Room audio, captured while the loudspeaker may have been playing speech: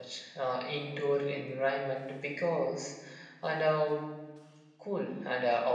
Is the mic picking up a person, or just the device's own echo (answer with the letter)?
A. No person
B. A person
B